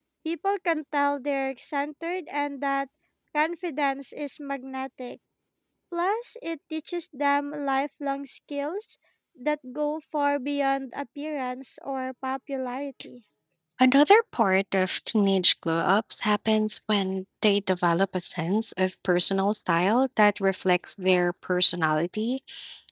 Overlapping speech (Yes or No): No